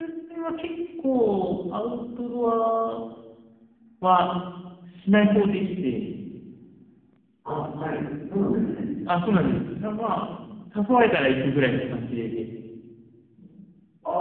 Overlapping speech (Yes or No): No